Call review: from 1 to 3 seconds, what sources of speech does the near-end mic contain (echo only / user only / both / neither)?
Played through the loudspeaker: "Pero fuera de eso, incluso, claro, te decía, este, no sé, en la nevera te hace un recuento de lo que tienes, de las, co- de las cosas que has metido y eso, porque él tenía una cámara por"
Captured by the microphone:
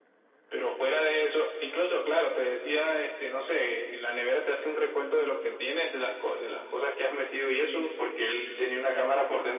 echo only